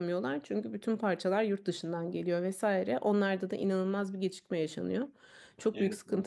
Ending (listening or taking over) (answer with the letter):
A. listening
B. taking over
A